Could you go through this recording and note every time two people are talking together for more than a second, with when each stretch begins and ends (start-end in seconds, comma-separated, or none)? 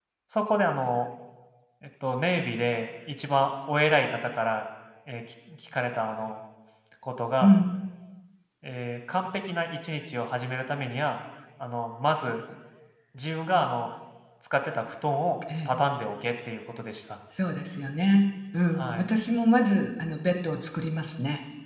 none